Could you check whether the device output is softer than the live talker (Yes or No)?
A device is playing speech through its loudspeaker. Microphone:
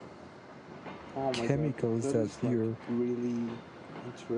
Yes